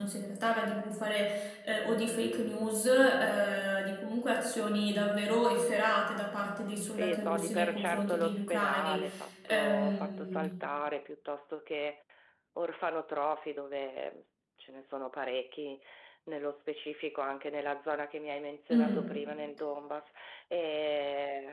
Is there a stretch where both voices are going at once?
Yes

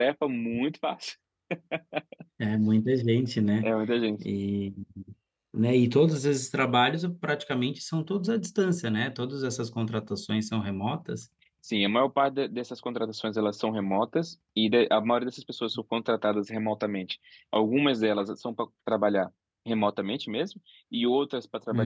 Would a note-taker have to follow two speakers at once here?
No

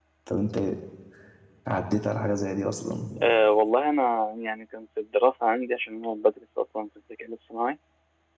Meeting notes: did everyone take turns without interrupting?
Yes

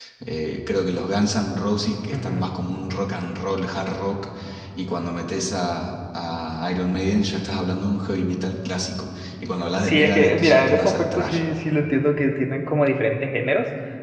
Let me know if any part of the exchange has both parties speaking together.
Yes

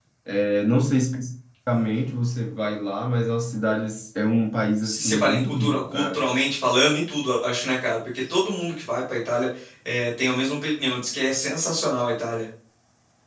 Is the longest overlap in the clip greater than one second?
Yes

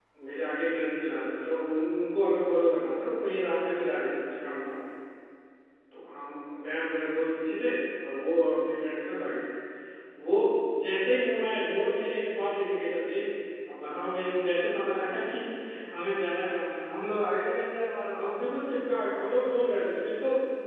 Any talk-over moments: No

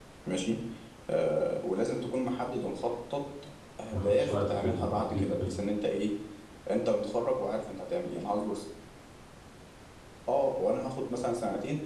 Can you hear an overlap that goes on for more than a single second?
Yes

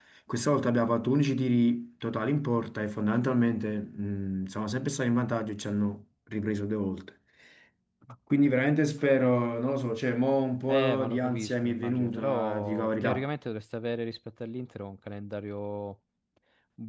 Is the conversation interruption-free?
No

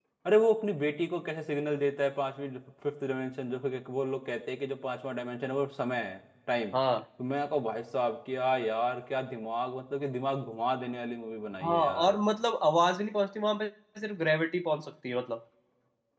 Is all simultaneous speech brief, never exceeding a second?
Yes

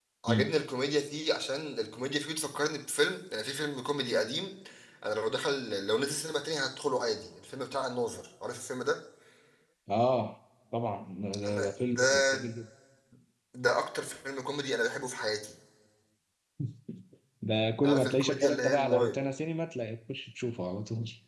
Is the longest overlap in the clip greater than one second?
Yes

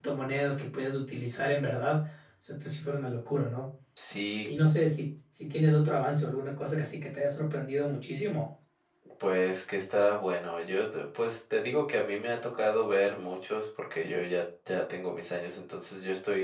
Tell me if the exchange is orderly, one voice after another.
Yes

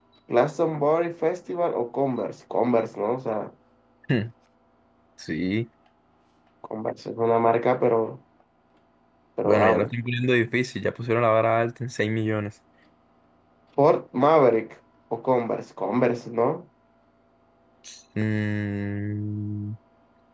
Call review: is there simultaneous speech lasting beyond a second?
No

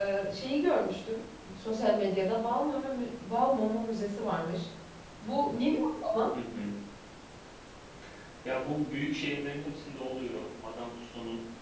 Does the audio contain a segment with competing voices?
No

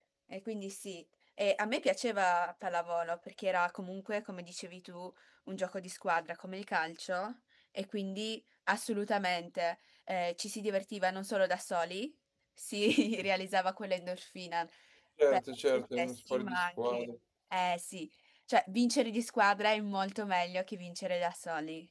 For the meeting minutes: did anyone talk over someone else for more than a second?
Yes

